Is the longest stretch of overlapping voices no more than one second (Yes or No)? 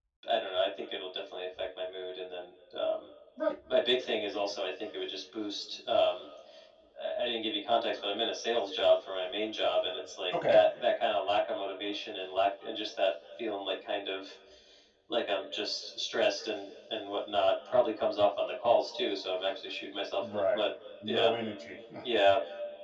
Yes